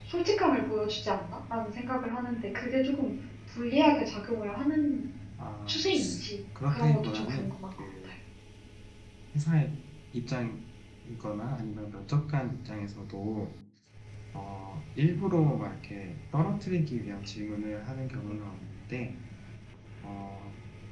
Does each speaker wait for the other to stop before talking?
No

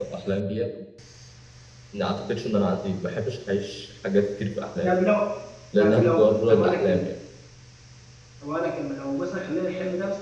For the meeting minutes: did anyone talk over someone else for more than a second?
Yes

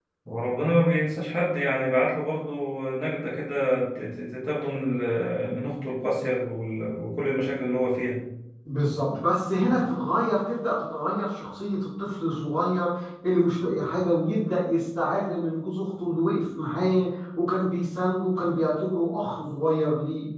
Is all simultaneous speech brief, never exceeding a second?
Yes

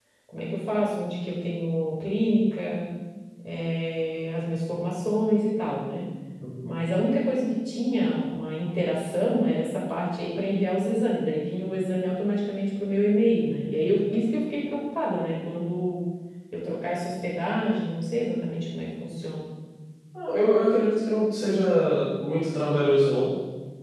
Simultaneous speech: No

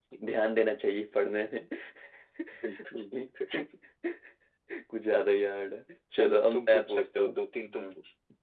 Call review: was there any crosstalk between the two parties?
Yes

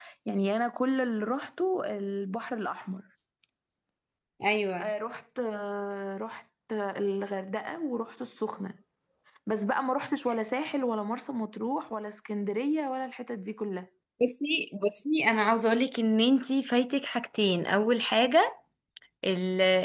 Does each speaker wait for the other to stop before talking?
Yes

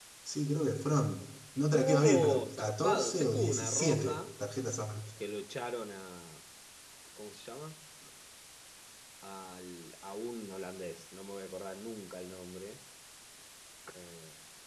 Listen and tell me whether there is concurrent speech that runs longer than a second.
Yes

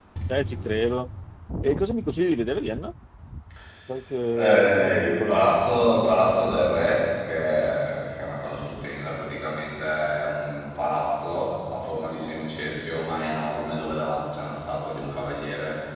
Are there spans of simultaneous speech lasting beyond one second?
Yes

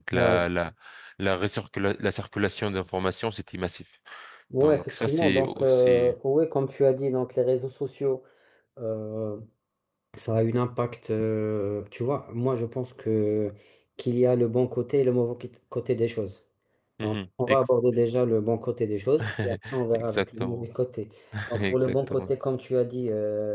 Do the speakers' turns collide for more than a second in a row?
Yes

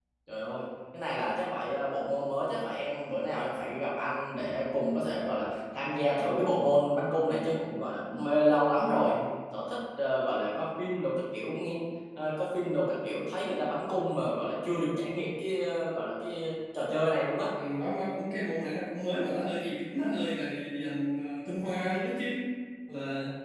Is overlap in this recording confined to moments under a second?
Yes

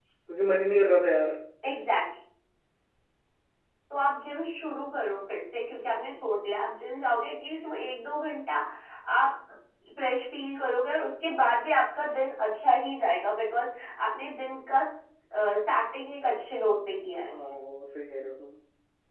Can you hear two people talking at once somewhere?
No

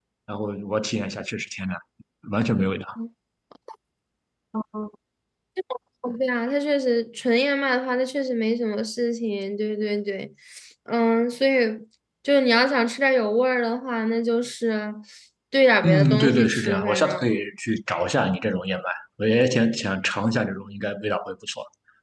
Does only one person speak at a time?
No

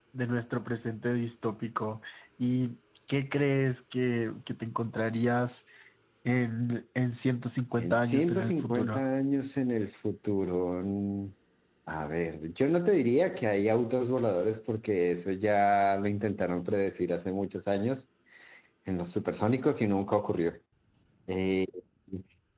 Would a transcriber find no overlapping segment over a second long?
No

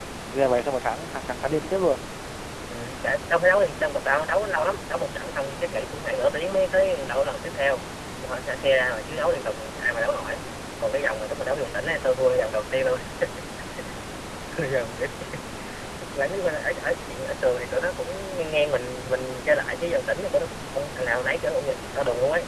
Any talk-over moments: No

